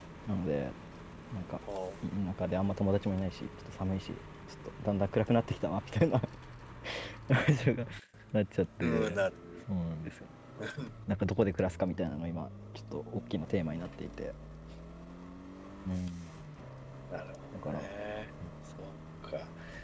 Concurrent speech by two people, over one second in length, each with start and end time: none

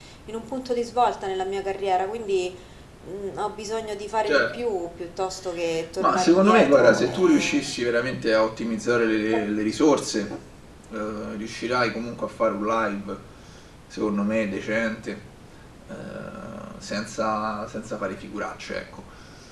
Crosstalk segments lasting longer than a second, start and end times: 6.0-7.5

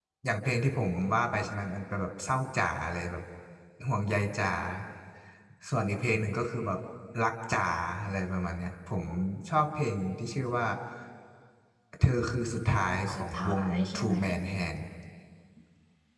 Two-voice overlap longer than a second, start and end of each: 12.7-14.2

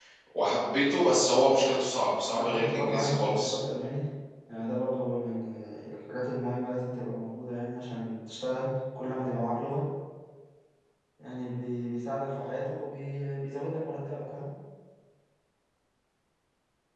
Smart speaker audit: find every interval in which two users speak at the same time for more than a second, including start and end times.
2.3-3.5

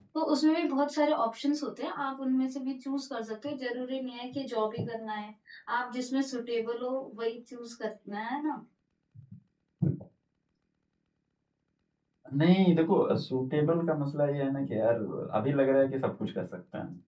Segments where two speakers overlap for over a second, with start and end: none

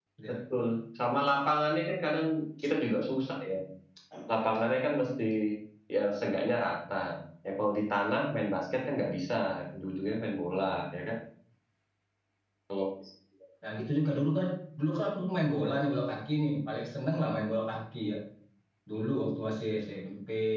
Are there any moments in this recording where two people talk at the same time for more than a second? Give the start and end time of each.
none

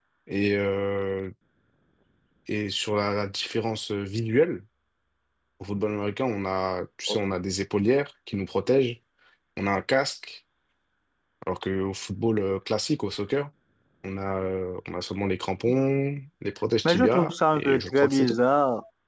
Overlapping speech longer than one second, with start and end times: 16.8-18.4

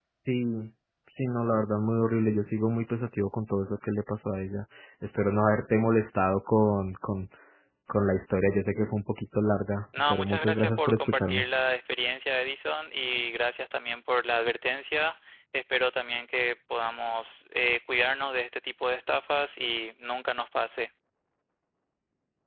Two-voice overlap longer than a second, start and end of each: 10.1-11.4

